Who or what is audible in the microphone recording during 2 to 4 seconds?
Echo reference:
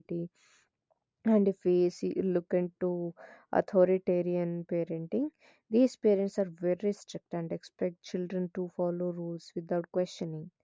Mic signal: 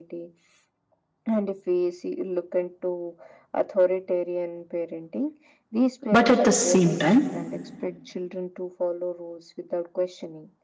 echo only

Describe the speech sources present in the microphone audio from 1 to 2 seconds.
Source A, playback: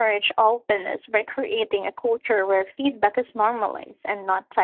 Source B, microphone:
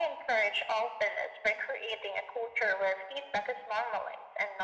echo only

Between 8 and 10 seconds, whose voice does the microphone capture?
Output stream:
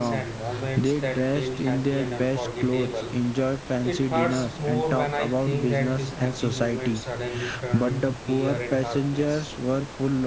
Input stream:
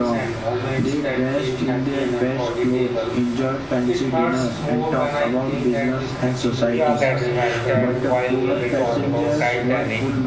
both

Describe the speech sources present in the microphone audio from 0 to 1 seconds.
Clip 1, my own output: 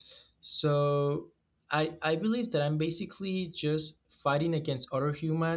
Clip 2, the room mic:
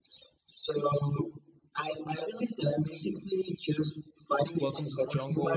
echo only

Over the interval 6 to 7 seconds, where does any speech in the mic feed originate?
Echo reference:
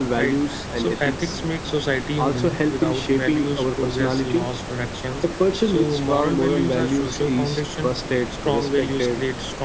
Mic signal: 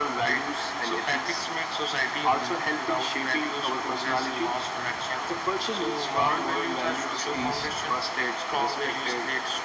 echo only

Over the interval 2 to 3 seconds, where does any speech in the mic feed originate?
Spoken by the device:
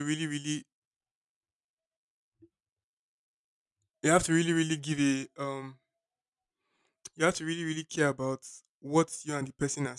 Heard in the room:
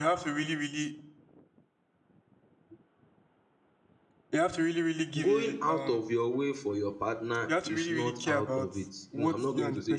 neither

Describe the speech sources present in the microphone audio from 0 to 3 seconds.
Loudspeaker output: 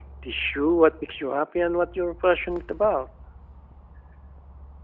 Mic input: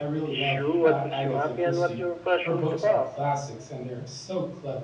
both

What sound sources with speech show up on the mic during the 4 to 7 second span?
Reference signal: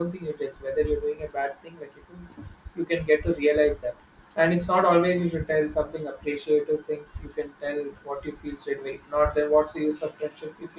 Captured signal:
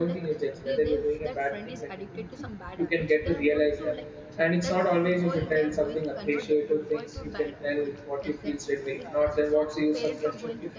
both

